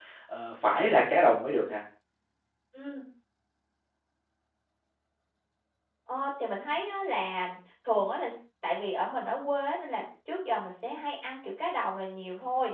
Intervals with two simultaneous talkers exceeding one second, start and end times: none

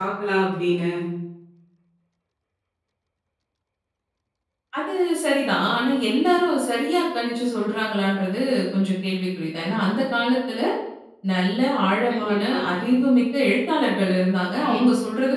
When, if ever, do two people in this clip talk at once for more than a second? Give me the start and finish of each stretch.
none

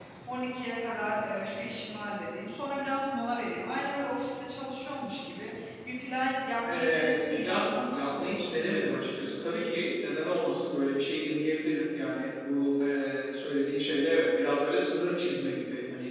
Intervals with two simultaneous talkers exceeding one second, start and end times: 6.7-8.4

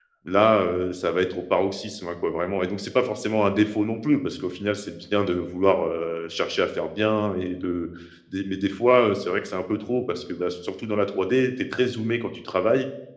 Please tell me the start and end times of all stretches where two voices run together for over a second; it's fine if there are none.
none

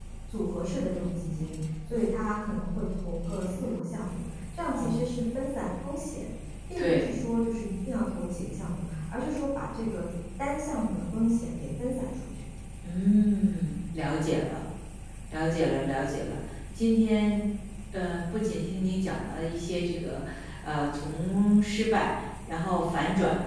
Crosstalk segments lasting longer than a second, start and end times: none

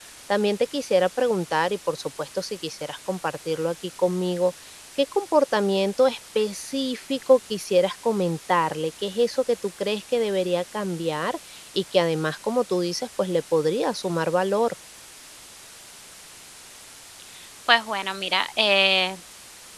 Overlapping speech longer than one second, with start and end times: none

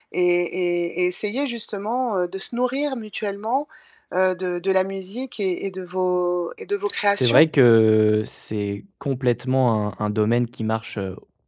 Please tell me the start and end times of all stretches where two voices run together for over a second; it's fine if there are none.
none

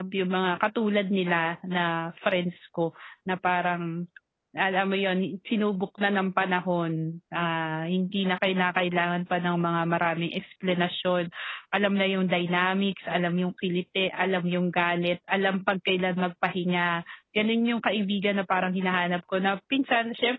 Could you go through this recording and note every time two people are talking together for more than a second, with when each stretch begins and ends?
none

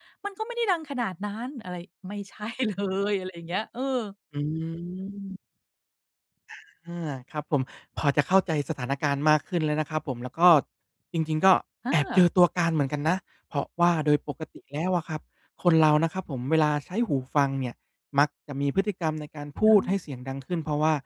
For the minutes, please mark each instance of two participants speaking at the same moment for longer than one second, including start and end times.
none

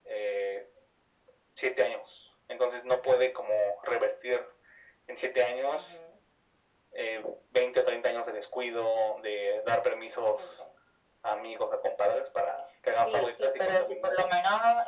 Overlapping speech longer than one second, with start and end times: 13.0-14.3

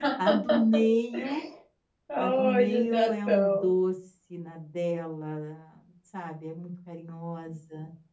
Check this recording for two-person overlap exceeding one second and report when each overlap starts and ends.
2.2-3.7

